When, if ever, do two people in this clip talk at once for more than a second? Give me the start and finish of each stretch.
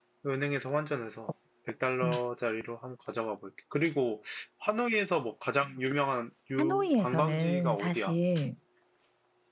6.6-8.1

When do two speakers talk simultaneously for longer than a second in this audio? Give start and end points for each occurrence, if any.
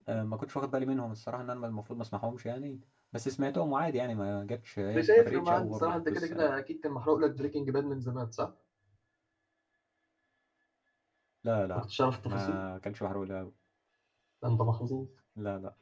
4.9-6.5

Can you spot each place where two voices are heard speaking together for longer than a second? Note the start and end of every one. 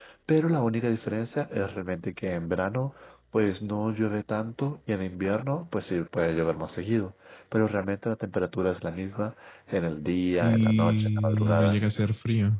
10.4-11.8

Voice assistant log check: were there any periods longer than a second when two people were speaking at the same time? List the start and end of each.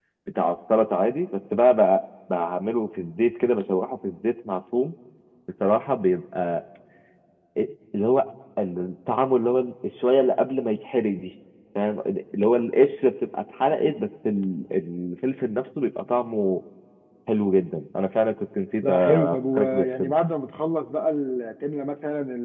18.8-20.1

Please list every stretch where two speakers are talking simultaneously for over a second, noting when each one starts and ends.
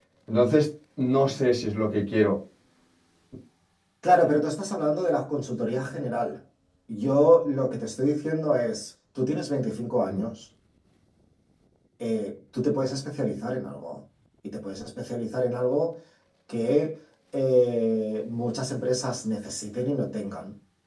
none

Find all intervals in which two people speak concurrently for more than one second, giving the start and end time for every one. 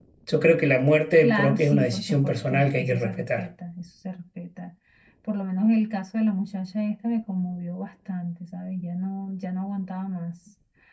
1.2-3.5

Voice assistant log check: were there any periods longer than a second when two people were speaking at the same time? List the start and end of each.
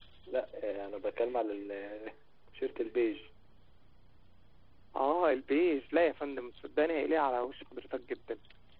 none

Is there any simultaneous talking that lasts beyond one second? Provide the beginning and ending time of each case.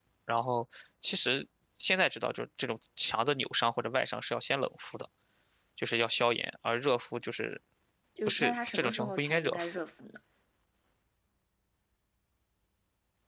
8.3-9.8

